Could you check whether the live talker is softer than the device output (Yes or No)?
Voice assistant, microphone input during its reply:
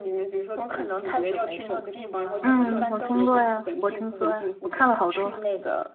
No